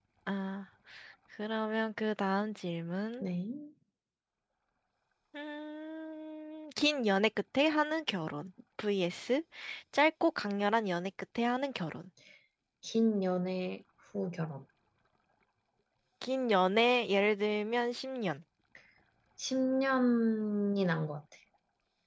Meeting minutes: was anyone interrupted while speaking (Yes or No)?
No